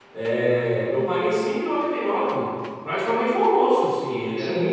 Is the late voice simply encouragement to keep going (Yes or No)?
No